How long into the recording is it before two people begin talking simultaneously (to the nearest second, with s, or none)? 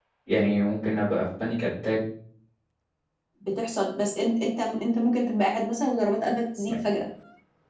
none